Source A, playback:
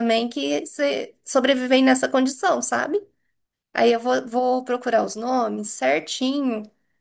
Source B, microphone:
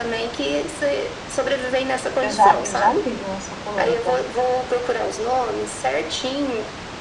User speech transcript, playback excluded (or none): Eu já, eu já tive uma suculenta.